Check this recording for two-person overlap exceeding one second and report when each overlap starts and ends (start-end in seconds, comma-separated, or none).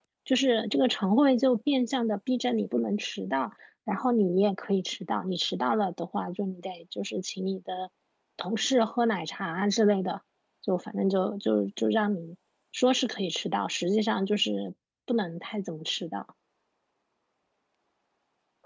none